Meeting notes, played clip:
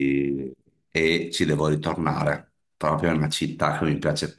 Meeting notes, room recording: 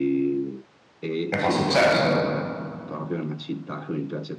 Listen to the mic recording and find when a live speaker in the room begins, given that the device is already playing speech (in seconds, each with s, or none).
1.3 s